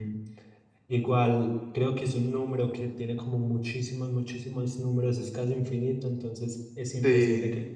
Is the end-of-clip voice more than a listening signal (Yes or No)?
No